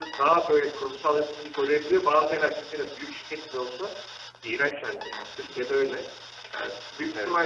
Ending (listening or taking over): listening